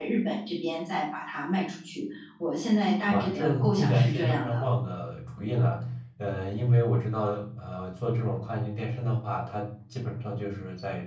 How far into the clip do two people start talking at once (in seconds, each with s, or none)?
3.1 s